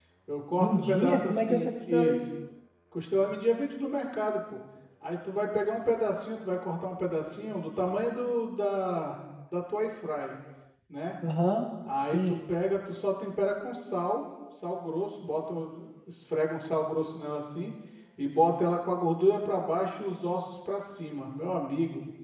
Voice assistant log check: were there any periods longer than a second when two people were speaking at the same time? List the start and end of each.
0.6-2.2

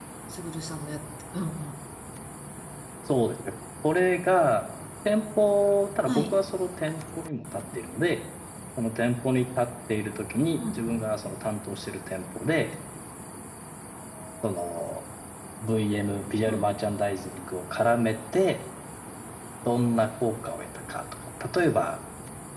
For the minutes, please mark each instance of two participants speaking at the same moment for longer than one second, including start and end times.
none

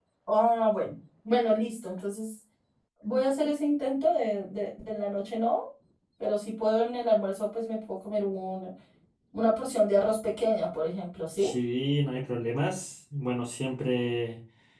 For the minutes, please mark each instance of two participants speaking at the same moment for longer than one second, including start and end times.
none

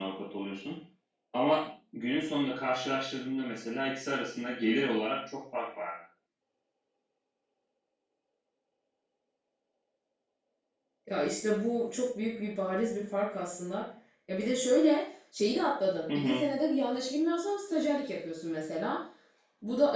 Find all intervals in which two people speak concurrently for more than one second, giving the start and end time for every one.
none

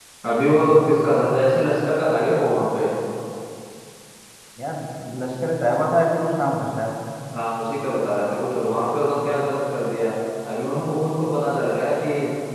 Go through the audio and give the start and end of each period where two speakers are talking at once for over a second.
none

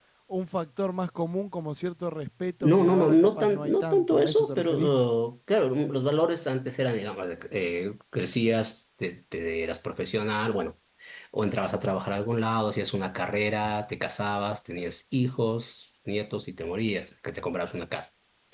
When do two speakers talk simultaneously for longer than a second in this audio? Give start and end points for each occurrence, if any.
2.6-5.0

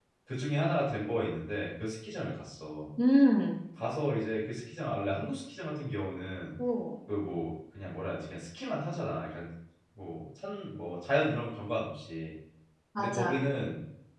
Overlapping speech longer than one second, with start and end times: none

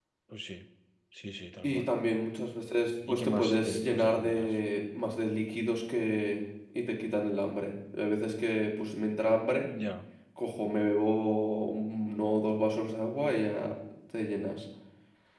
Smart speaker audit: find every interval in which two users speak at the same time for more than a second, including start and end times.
3.1-4.6

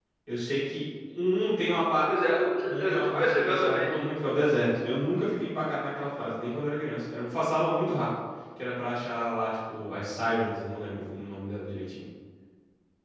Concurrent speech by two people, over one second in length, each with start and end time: 2.7-4.0

